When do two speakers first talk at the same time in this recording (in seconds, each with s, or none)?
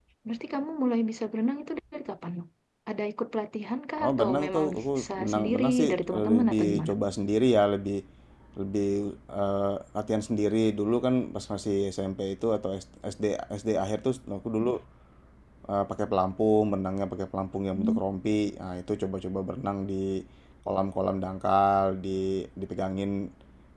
4.0 s